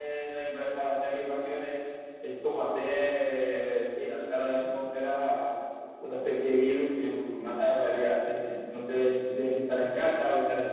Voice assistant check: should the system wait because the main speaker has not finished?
Yes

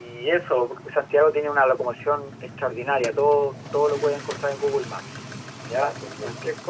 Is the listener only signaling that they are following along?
Yes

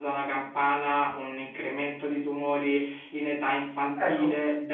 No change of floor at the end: Yes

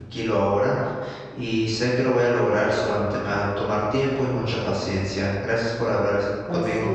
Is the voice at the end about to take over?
Yes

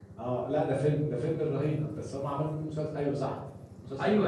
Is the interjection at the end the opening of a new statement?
Yes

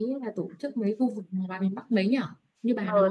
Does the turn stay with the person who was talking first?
No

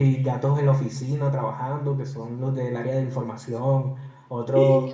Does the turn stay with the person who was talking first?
Yes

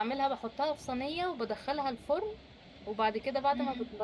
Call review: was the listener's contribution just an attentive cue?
Yes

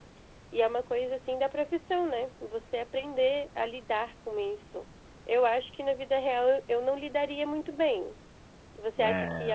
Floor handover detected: No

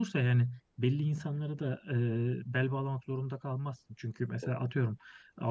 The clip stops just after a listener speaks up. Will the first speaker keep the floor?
Yes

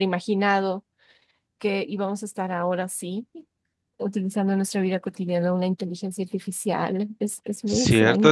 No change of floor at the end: No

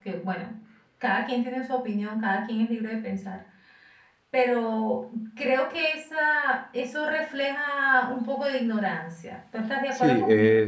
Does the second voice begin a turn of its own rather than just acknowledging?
Yes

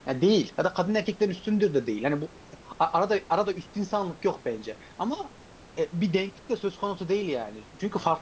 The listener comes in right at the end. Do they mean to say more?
No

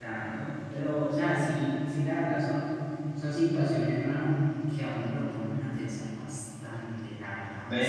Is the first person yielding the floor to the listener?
Yes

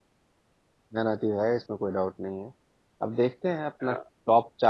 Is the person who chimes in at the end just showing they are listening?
Yes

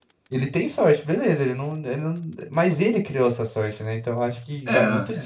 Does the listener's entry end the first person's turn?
No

